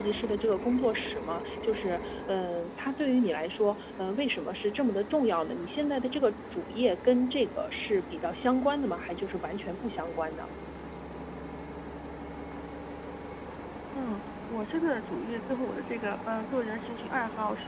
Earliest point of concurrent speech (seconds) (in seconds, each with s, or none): none